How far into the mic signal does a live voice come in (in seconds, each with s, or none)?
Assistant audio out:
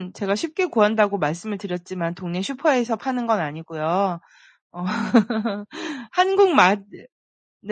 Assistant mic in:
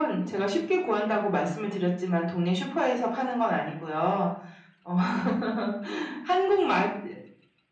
none